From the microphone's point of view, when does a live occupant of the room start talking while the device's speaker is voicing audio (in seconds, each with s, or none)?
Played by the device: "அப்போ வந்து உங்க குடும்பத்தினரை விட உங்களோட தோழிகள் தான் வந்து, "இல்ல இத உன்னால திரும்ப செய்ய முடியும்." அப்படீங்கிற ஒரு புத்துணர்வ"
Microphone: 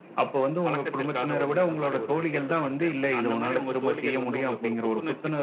0.7 s